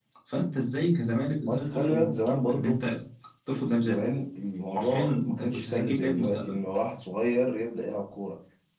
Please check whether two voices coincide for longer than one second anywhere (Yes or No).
Yes